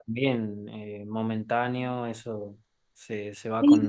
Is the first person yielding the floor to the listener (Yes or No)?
Yes